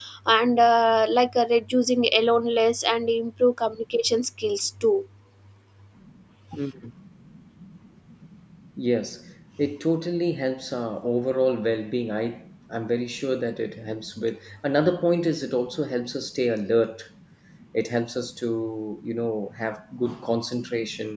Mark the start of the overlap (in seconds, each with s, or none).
none